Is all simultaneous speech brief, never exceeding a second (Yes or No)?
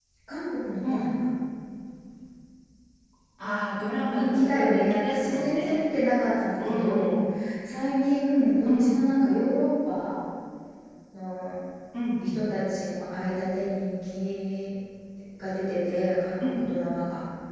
No